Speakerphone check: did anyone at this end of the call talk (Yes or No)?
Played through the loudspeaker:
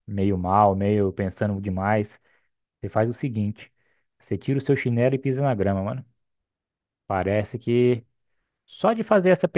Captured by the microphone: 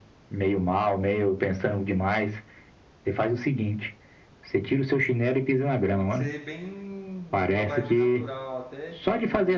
Yes